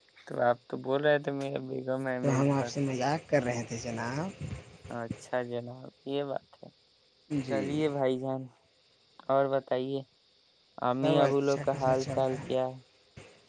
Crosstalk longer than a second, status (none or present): present